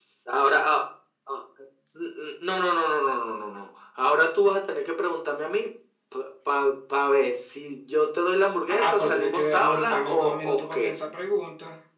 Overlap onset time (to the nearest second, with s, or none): 9 s